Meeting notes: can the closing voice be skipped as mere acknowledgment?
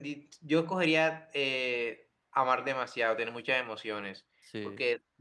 Yes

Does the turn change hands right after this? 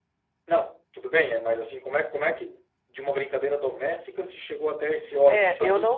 Yes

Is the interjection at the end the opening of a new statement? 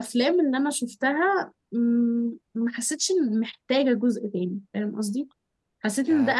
Yes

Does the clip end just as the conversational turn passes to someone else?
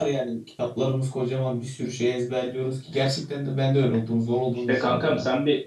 Yes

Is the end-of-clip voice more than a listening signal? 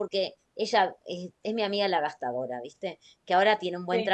No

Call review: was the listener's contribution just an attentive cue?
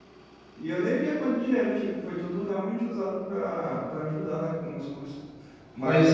Yes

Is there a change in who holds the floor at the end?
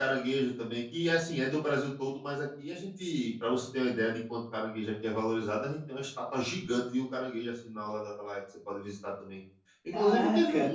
No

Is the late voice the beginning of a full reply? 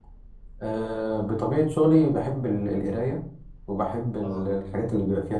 No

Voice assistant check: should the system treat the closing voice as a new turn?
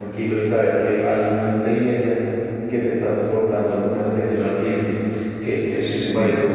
Yes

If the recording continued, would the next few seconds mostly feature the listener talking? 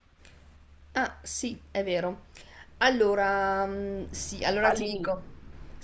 No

